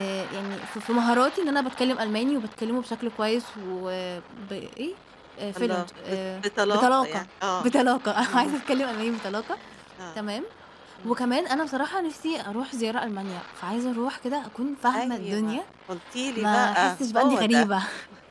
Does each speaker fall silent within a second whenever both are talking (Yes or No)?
No